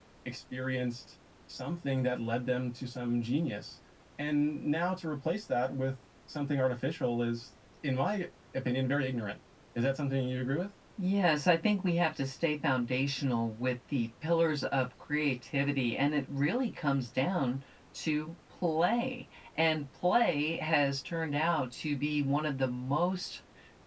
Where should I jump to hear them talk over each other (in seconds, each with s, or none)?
none